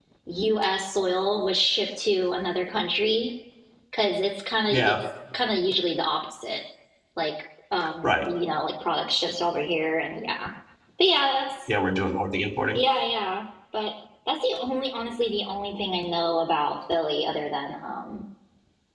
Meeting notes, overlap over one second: none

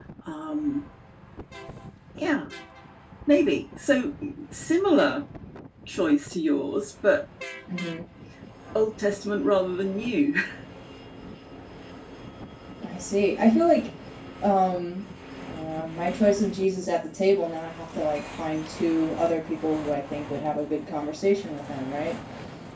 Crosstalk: none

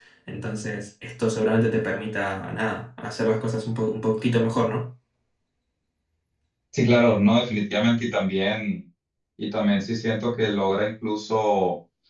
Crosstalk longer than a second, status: none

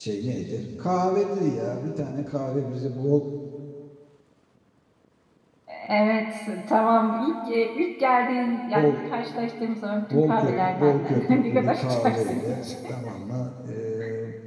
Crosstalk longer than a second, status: present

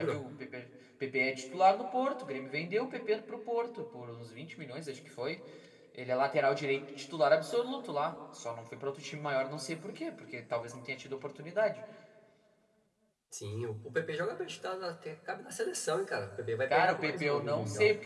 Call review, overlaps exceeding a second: present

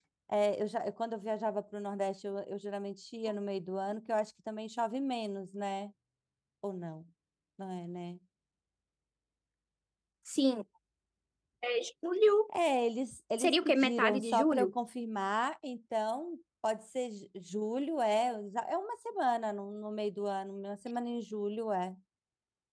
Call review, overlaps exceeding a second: present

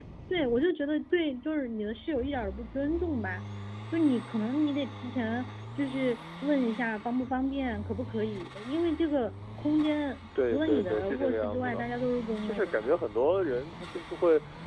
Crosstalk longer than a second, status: present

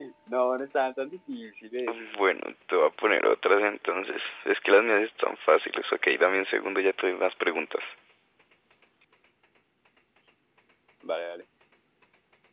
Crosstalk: none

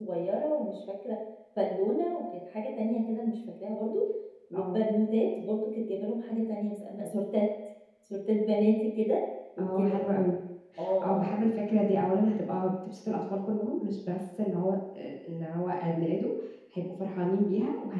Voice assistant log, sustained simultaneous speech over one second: none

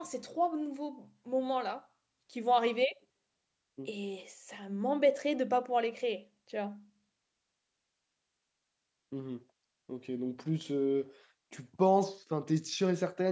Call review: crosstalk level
none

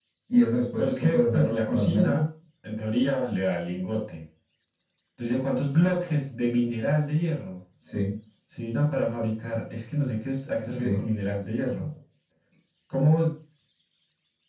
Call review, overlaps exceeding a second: present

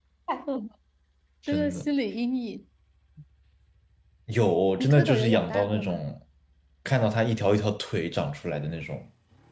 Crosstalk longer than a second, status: present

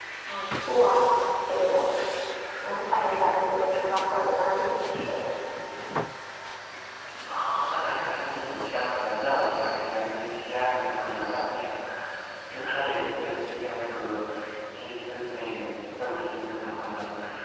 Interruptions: none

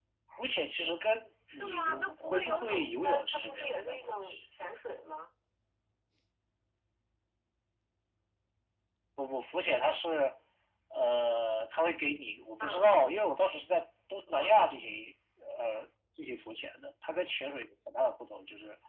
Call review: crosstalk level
present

